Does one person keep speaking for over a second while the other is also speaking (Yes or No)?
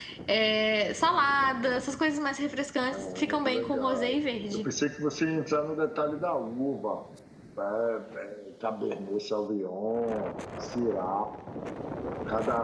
Yes